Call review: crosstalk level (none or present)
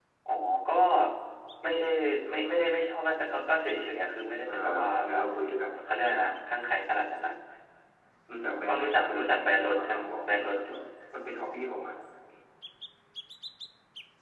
present